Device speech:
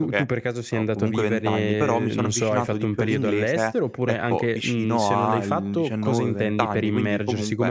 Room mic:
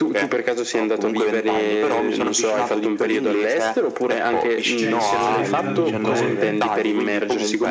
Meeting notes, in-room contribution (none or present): present